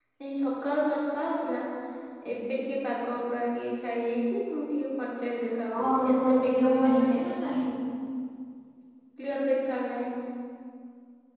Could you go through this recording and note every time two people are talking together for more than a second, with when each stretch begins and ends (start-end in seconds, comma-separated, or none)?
5.7-7.0